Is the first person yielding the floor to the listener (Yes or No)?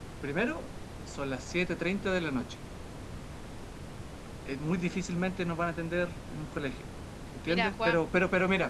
No